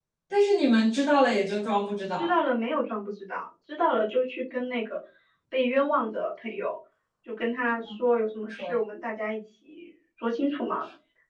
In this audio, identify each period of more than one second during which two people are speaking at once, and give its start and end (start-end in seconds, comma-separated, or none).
none